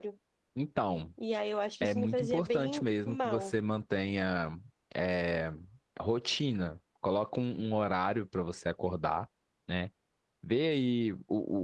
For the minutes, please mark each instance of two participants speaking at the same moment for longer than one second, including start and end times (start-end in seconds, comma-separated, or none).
1.8-3.5